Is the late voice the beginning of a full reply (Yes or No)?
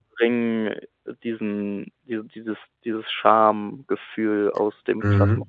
Yes